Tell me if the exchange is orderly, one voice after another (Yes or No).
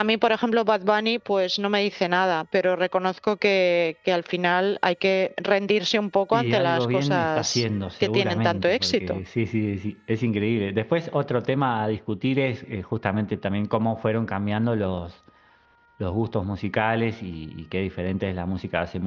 No